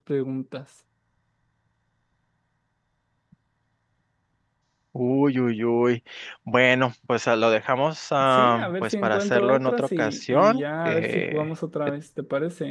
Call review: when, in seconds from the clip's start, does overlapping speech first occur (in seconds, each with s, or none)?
8.3 s